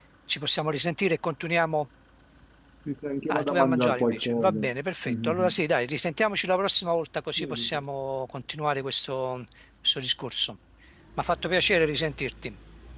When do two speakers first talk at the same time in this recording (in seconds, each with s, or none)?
3.3 s